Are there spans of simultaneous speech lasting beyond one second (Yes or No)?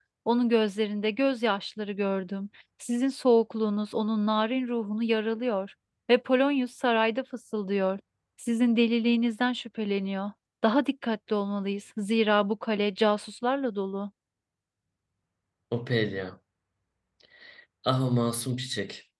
No